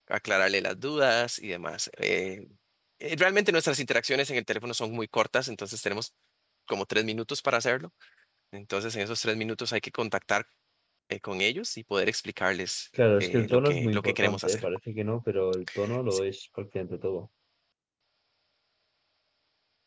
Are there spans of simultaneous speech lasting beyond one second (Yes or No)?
Yes